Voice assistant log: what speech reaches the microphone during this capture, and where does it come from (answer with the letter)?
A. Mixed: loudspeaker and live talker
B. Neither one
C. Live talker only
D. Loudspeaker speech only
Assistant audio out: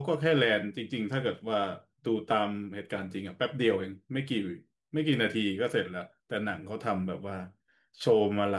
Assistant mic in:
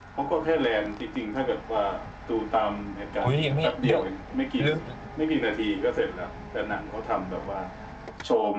A